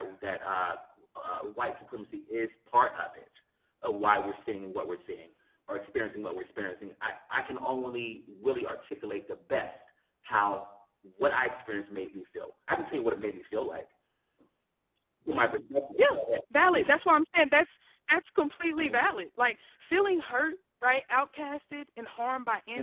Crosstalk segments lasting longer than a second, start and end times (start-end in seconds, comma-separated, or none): none